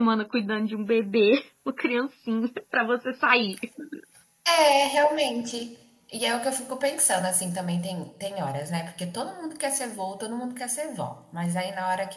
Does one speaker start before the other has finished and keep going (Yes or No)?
No